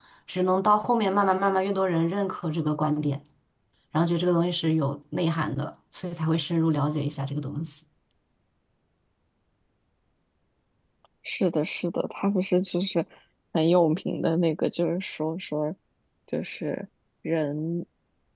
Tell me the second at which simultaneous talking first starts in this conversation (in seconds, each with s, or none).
none